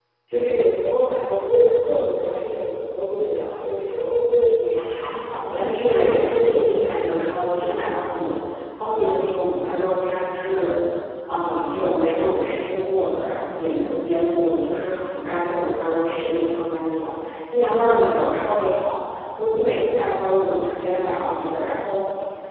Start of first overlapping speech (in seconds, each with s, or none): 5.5 s